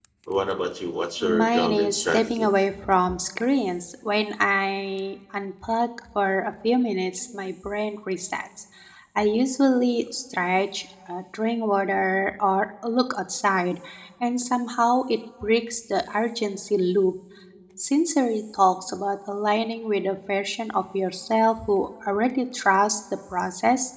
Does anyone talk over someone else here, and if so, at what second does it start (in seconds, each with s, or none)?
1.2 s